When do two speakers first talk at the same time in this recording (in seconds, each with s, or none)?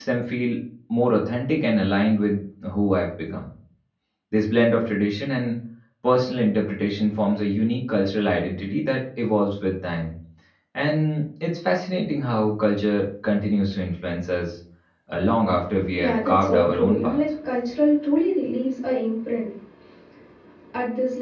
15.9 s